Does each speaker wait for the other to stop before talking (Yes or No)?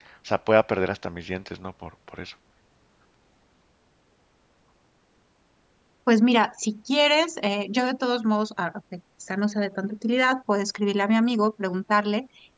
Yes